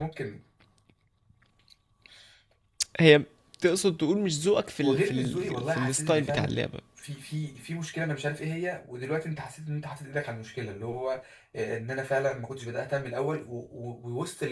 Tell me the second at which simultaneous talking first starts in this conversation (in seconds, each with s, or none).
4.8 s